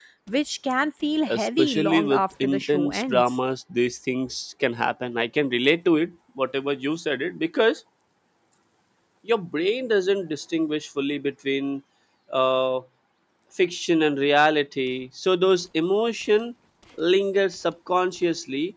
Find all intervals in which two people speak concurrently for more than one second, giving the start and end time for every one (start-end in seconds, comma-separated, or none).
1.3-3.3